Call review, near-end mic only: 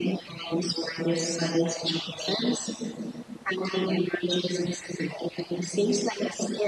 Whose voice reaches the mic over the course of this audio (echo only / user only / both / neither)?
echo only